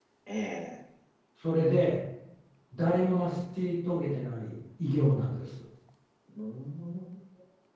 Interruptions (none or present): none